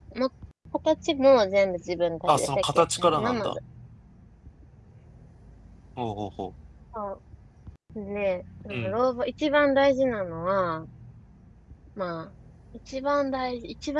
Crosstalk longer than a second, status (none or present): present